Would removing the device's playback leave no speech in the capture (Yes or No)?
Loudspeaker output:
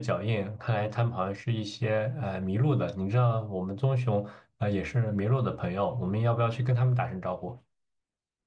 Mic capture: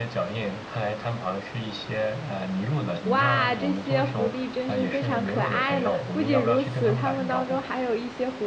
No